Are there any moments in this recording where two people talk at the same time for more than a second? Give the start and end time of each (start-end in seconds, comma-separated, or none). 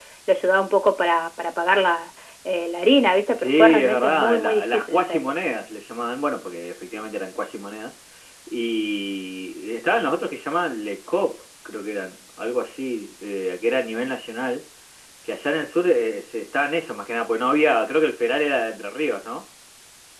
3.3-5.4